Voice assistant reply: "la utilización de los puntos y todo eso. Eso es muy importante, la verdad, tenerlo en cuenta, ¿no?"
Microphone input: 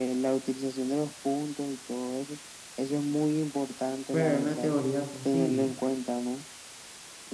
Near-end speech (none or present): present